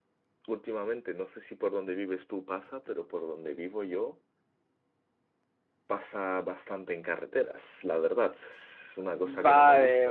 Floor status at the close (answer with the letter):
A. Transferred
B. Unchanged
A